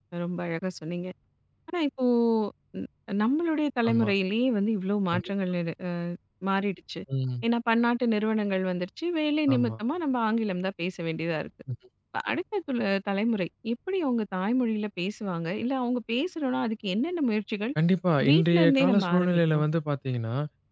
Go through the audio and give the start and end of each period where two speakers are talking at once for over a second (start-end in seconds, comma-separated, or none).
18.3-19.6